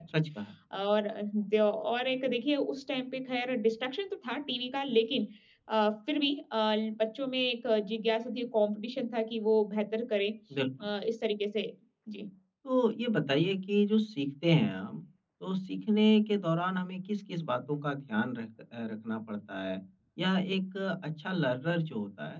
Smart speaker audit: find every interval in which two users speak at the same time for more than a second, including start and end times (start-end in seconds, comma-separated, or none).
none